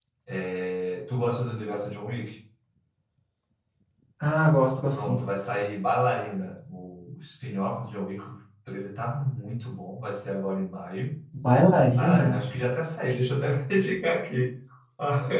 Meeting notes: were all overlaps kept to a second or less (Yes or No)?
Yes